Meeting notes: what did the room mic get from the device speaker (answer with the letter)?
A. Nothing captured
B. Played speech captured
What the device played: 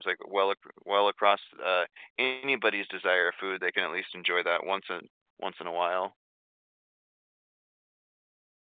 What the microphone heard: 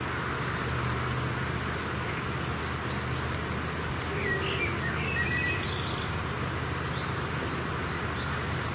A